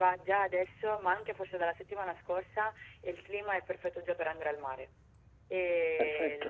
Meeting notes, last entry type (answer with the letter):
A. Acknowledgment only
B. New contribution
A